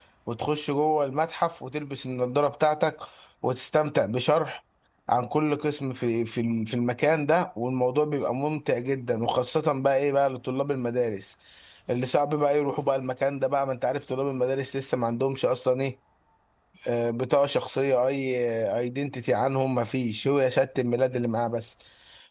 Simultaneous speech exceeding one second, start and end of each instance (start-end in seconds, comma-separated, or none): none